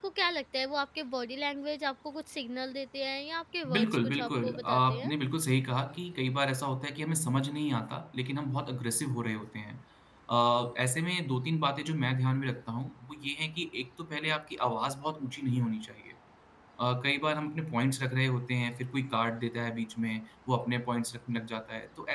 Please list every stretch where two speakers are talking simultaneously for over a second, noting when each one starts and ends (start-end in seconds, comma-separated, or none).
3.7-5.1